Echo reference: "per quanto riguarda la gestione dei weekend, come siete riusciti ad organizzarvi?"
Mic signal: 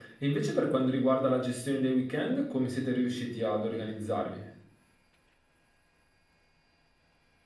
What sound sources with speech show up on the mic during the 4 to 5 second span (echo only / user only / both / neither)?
echo only